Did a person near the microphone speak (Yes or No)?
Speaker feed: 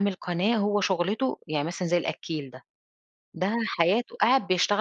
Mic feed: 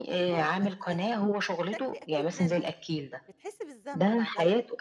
Yes